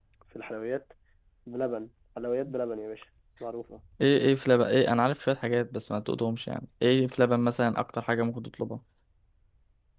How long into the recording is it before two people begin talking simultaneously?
none

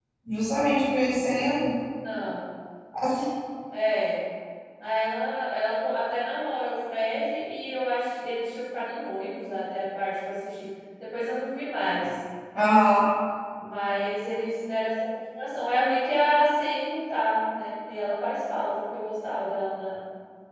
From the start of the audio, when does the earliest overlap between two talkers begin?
none

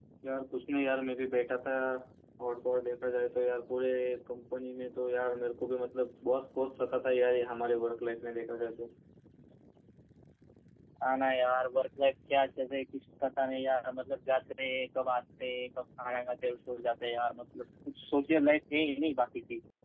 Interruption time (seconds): none

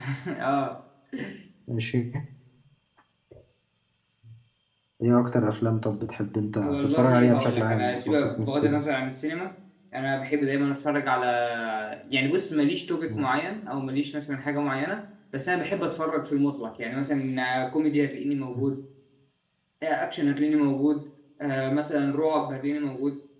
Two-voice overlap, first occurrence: 6.6 s

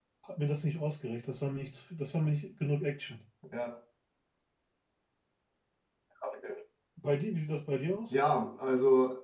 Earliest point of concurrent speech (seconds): none

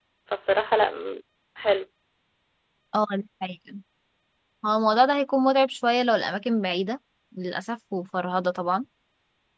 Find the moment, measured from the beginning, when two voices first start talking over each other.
none

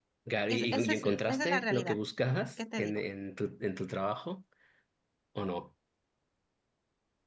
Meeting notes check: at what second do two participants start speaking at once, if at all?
0.5 s

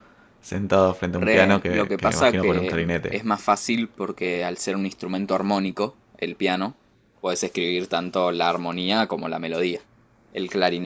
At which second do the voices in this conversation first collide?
1.2 s

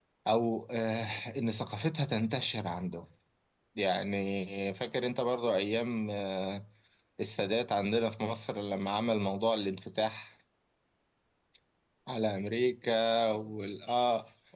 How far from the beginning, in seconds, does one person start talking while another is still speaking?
none

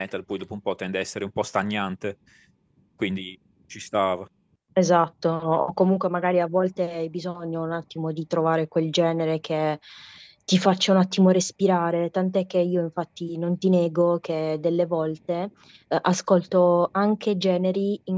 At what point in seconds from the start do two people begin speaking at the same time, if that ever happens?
none

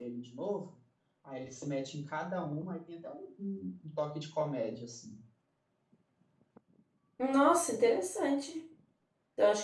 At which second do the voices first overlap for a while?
none

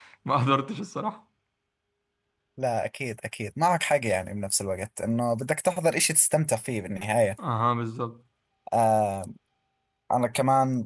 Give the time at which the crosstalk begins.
none

